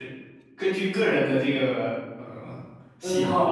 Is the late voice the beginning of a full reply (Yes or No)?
Yes